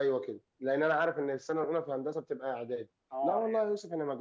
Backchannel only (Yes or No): Yes